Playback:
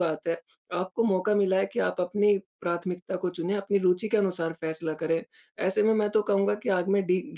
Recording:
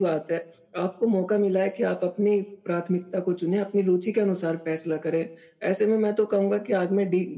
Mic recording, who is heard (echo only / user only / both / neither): echo only